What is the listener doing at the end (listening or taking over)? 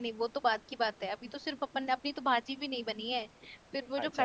listening